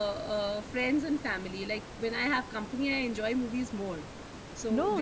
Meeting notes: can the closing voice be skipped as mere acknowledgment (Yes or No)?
No